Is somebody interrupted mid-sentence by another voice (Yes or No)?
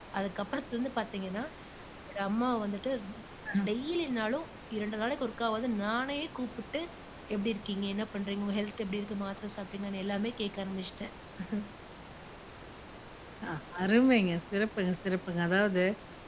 No